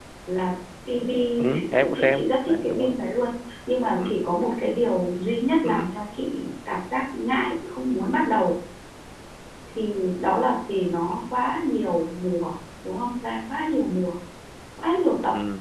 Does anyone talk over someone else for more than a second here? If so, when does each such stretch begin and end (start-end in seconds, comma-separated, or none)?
1.5-3.0